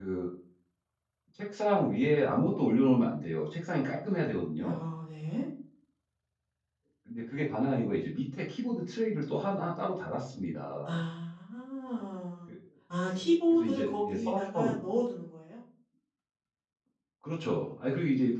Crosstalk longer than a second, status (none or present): present